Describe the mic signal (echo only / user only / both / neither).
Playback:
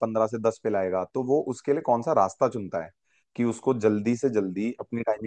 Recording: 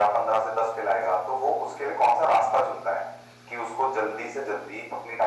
echo only